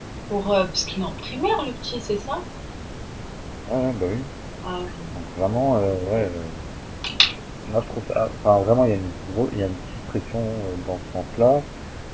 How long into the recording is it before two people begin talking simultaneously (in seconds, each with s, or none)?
none